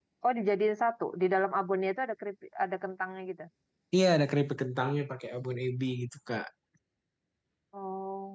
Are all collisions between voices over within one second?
Yes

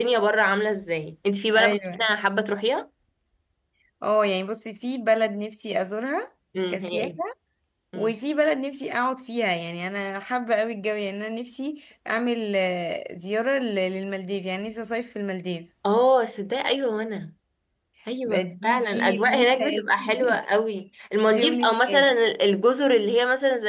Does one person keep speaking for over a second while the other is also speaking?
Yes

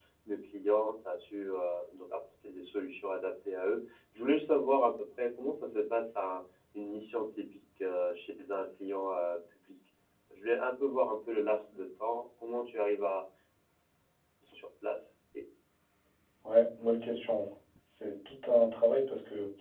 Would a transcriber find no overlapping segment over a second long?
Yes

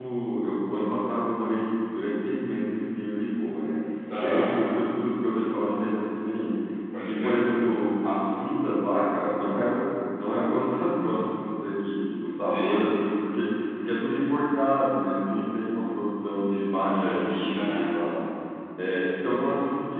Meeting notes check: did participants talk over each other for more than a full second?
Yes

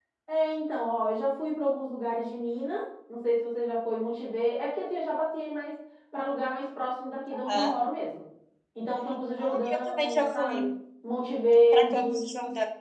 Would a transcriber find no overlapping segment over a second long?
No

